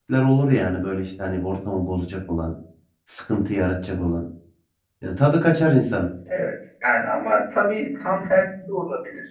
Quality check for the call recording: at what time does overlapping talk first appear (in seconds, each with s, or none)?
none